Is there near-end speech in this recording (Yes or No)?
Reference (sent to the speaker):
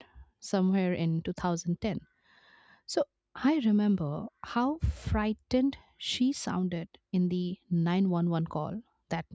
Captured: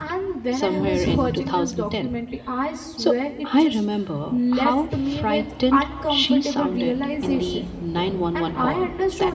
Yes